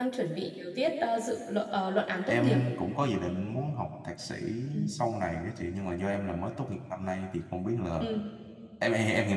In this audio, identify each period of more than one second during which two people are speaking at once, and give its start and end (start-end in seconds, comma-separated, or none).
none